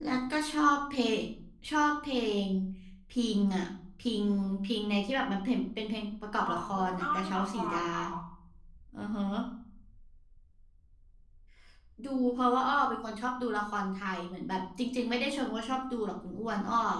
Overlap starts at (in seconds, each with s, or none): 6.4 s